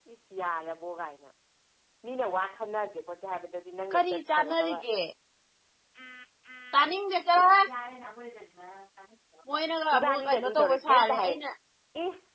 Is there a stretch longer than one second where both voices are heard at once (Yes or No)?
Yes